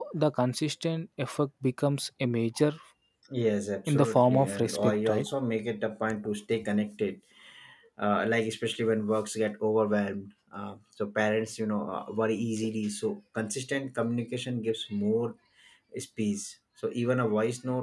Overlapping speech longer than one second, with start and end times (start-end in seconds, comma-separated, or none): 3.9-5.2